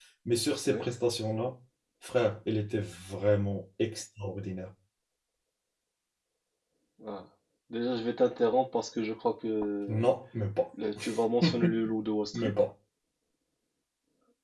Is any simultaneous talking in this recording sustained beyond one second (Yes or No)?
No